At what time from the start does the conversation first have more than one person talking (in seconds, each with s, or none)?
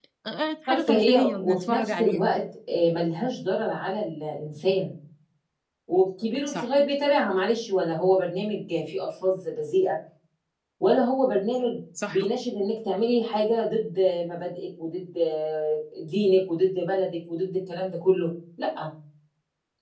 0.7 s